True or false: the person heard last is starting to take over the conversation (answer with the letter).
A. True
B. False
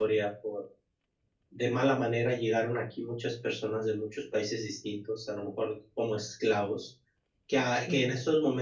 B